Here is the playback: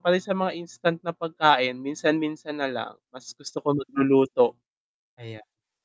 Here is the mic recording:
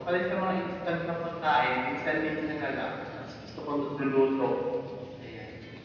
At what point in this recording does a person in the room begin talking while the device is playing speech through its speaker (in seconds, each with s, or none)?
none